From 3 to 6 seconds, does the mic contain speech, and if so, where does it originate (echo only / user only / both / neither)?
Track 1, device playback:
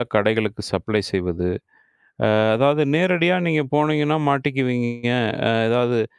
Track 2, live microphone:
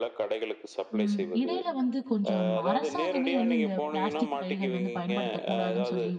both